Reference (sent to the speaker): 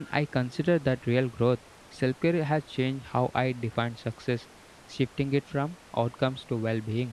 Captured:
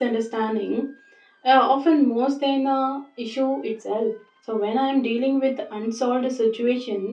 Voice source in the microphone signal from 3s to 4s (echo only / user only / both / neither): user only